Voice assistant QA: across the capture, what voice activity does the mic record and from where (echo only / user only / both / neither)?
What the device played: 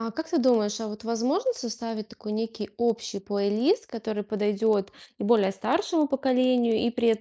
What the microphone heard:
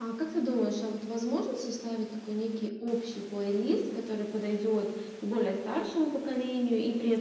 echo only